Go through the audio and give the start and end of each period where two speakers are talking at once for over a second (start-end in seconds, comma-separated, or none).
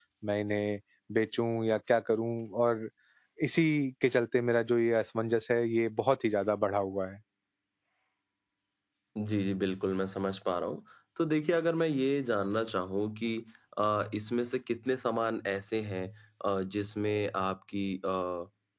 none